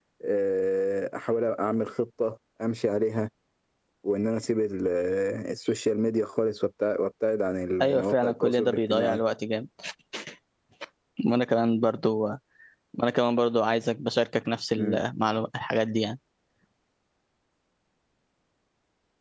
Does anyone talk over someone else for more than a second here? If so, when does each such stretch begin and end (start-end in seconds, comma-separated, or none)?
7.8-9.2